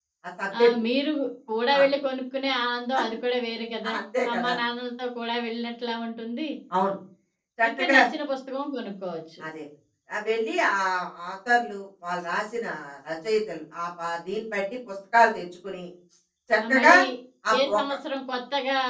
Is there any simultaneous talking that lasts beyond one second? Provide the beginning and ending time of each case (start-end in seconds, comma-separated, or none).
none